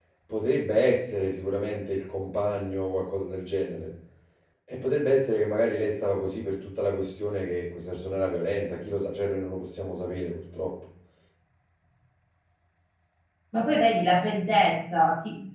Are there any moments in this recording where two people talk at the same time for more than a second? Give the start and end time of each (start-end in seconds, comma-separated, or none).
none